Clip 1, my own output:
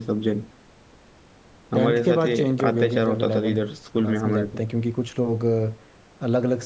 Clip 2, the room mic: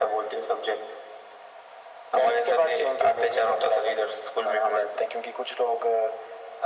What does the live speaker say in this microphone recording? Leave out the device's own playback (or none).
none